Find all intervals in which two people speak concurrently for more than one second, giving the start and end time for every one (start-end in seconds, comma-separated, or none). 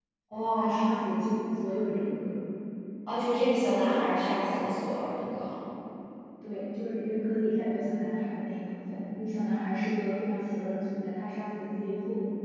none